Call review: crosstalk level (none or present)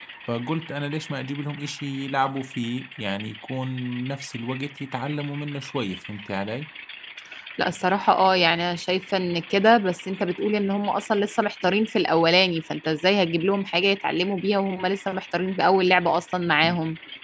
none